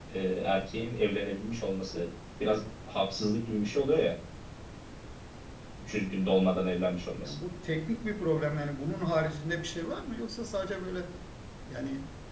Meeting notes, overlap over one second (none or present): none